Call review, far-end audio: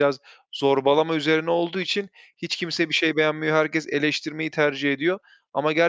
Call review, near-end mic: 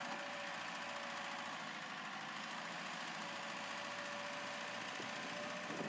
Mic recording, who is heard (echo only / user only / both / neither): neither